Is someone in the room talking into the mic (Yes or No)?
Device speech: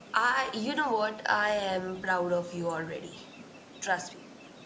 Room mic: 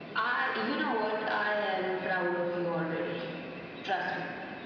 No